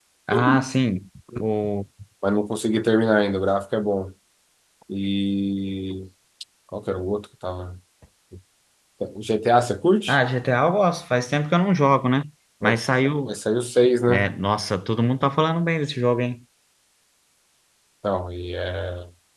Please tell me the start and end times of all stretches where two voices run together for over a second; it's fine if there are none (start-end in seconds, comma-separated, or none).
none